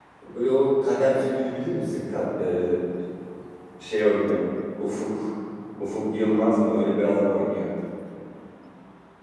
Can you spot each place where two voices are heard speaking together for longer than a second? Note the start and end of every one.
none

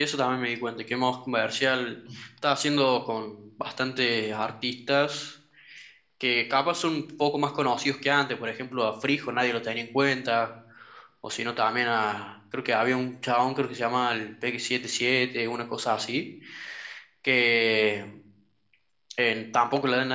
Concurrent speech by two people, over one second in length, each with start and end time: none

